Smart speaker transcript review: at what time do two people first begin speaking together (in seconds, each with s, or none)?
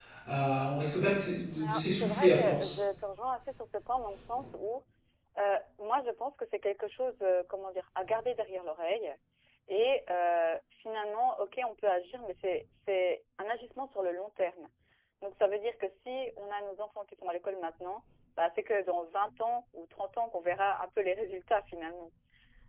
1.6 s